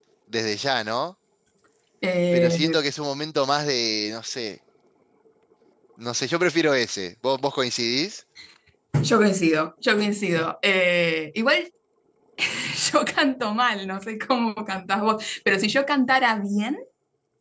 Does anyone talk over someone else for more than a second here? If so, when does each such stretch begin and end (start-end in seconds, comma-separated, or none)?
none